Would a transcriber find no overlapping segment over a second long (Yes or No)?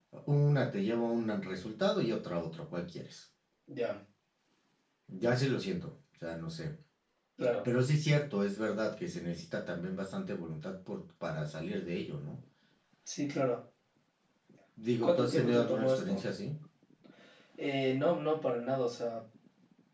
No